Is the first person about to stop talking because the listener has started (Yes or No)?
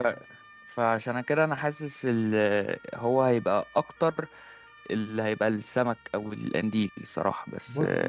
Yes